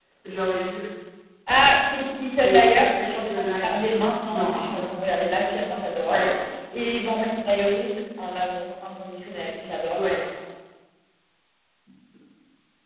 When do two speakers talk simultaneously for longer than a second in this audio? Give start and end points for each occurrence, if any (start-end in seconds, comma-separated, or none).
2.4-4.9